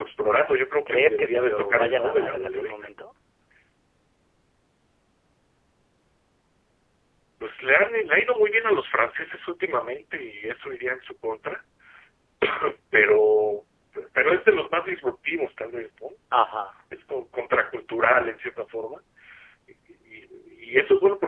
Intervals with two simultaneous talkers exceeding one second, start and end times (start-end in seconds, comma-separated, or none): 0.9-2.8